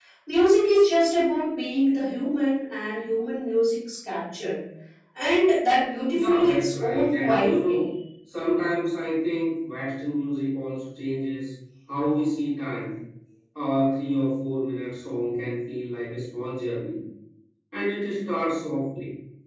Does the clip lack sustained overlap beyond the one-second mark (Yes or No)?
No